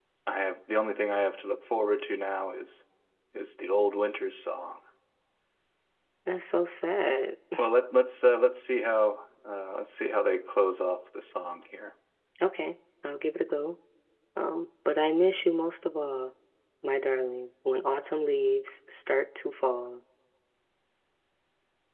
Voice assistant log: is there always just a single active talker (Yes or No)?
Yes